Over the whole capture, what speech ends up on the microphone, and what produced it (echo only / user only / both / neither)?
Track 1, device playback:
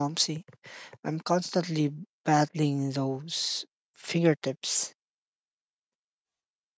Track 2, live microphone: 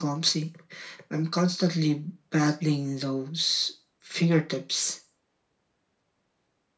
echo only